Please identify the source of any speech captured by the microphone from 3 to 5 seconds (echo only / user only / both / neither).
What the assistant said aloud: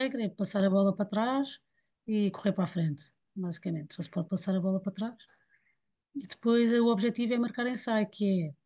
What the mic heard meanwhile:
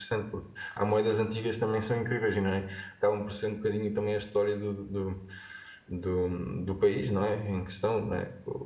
user only